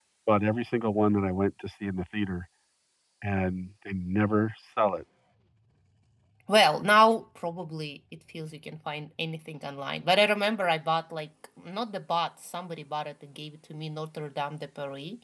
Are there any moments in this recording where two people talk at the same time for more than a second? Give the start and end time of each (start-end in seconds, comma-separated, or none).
none